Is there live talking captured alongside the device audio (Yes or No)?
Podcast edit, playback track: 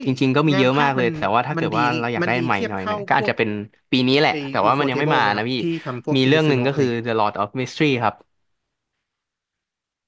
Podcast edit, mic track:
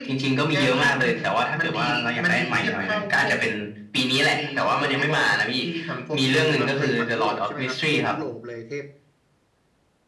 Yes